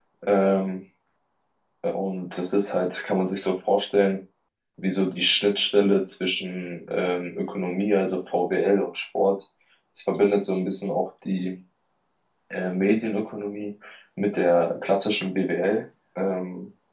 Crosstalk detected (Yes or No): No